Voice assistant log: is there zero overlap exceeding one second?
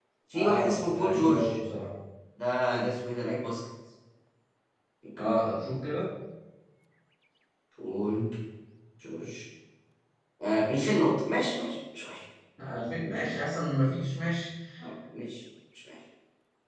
No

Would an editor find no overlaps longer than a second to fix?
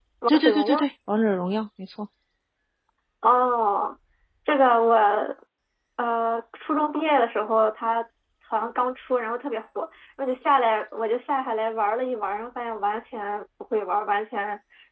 Yes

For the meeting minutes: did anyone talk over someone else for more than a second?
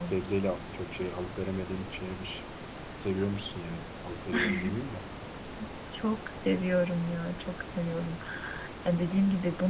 No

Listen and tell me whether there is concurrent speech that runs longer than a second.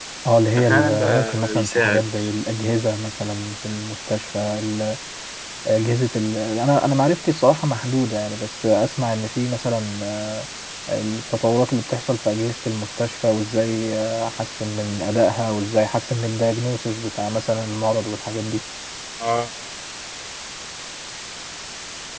Yes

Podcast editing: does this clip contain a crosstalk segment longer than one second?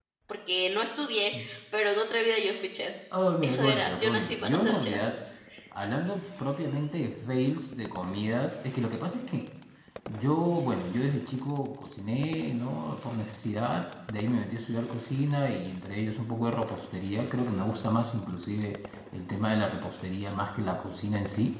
Yes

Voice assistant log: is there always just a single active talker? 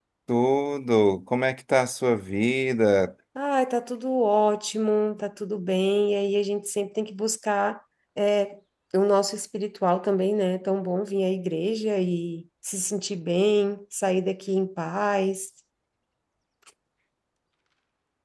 Yes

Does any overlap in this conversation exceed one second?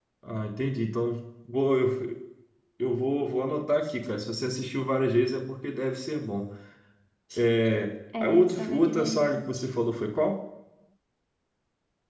Yes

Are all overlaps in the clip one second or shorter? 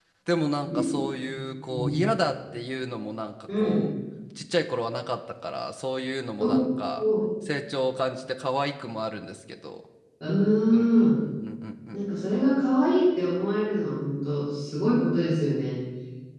Yes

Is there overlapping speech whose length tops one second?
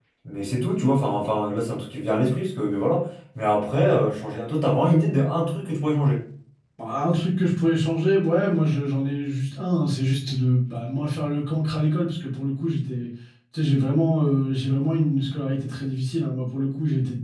No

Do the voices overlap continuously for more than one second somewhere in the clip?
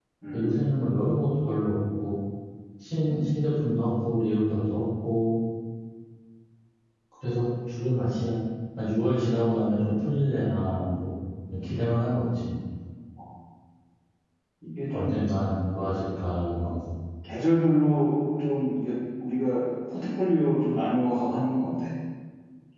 No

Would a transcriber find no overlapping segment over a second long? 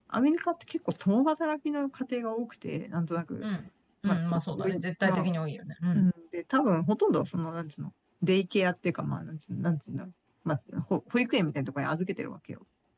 No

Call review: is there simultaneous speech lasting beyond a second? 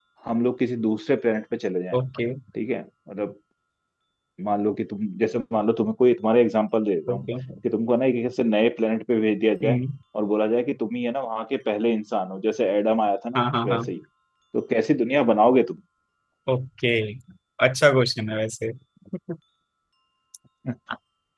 No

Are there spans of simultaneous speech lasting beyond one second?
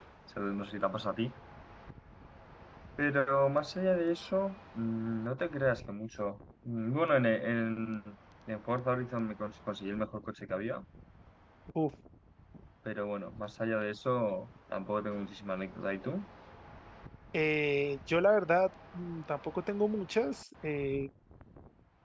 No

